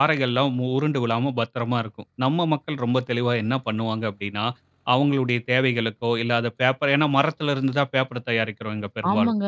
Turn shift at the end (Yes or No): Yes